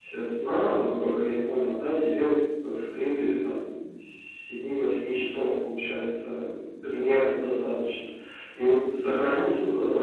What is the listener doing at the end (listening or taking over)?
listening